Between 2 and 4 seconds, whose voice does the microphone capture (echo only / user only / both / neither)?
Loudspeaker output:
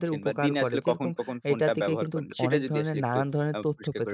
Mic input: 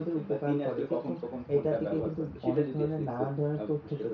echo only